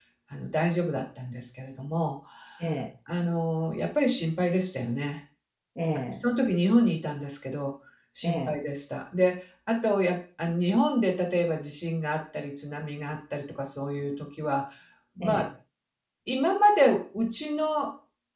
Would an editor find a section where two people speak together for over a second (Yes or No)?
No